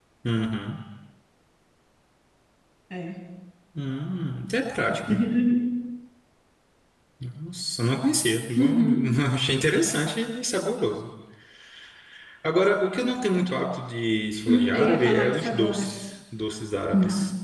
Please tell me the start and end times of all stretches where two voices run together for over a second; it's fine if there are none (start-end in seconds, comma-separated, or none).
14.5-15.9